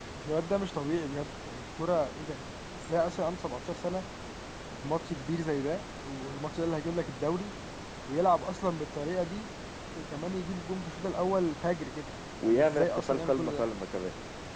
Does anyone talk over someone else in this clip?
Yes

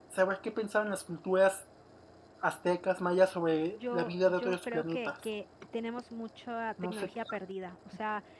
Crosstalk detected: Yes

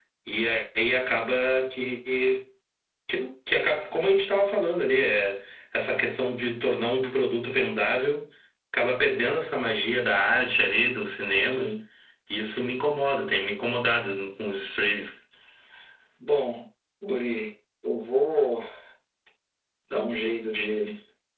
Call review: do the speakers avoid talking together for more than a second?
Yes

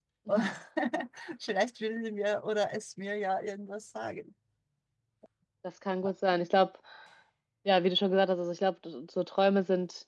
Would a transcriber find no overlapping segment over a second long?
Yes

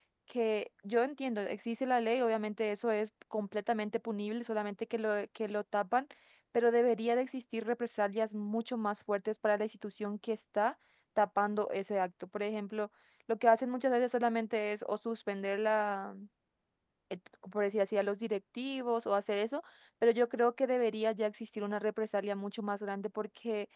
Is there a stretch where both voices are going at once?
No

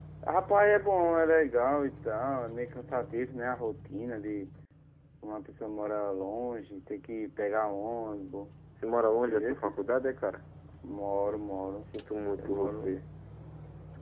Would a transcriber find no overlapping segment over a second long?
Yes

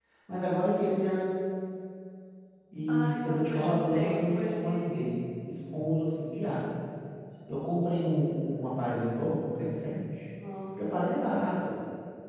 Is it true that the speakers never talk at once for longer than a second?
No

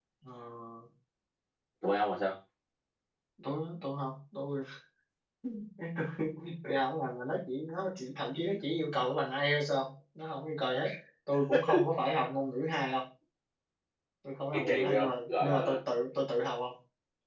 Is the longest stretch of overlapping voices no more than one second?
No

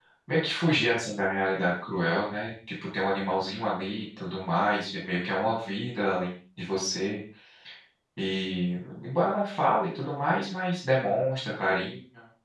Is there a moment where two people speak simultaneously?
No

